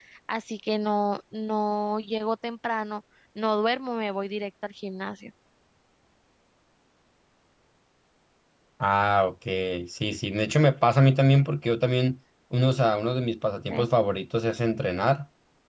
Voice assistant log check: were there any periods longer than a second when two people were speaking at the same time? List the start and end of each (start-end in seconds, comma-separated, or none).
none